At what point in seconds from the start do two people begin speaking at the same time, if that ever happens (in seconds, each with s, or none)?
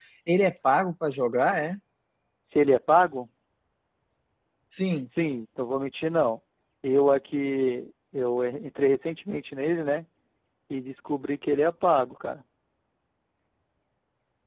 none